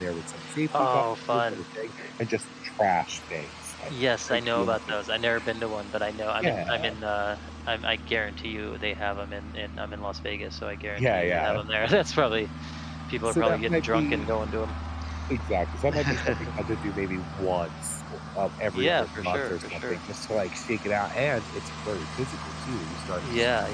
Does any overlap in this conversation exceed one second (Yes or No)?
Yes